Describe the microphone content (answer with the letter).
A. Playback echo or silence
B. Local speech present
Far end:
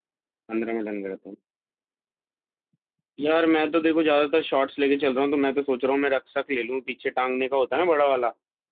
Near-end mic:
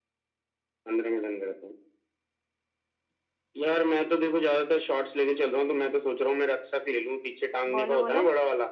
B